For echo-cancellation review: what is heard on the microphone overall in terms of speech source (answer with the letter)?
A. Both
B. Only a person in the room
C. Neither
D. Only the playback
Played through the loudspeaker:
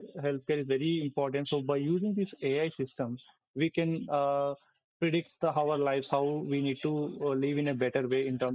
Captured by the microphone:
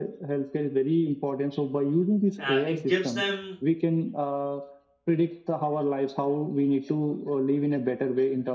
A